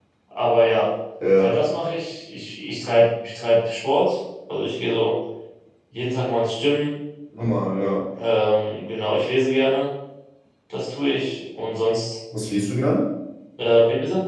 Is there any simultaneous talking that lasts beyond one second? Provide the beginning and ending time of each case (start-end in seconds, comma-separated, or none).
none